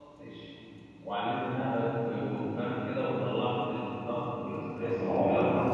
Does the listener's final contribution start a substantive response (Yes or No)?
Yes